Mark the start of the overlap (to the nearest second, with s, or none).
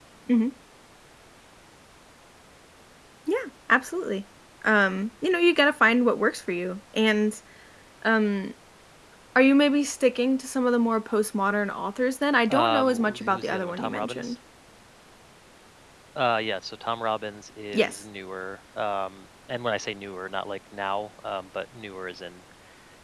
13 s